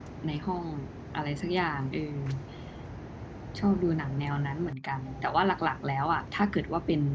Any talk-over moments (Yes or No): No